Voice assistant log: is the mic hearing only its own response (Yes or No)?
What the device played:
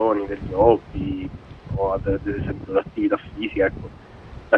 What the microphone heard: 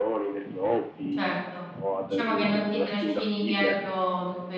No